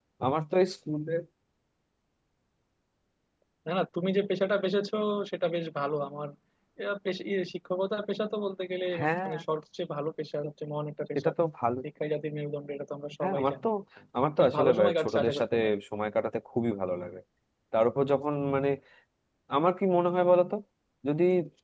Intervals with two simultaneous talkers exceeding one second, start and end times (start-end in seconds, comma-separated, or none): 14.4-15.7